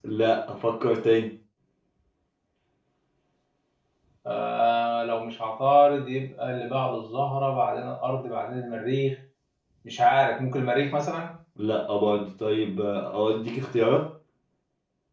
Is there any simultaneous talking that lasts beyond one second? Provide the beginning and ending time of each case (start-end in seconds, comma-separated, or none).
none